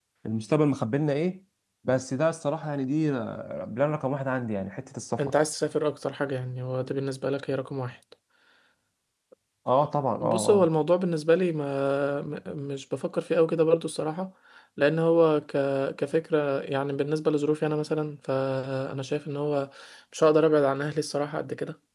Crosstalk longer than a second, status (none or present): none